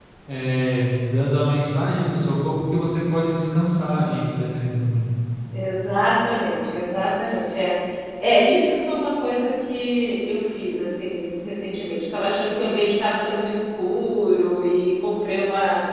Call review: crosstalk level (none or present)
none